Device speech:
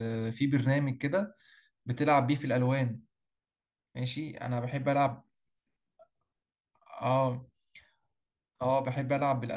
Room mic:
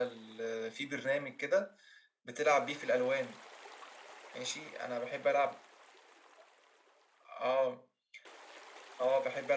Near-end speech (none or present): none